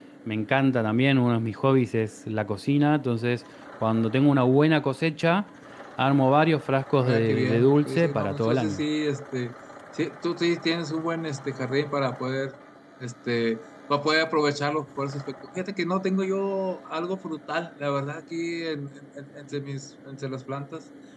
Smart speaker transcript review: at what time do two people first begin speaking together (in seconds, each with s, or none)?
7.0 s